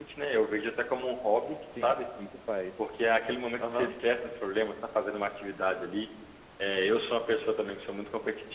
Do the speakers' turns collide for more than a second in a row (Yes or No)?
No